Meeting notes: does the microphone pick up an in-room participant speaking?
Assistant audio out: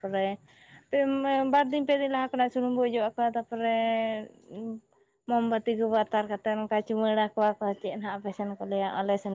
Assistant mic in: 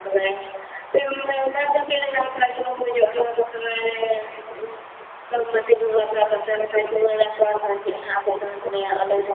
No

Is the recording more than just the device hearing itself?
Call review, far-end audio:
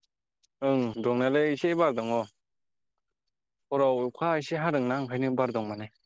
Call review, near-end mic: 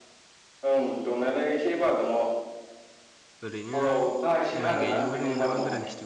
Yes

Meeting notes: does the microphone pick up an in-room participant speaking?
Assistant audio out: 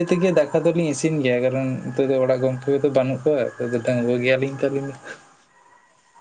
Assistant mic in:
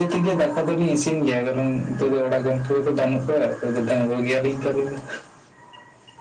No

